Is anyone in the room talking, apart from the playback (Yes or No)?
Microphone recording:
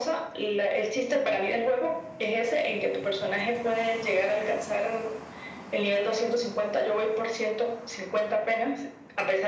No